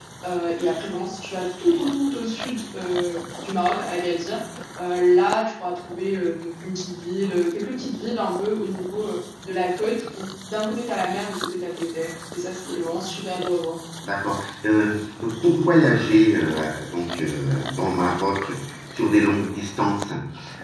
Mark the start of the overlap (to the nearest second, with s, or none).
none